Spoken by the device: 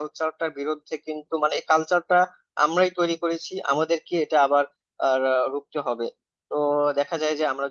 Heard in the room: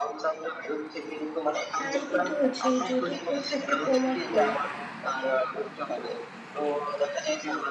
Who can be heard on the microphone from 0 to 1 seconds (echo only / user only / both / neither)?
echo only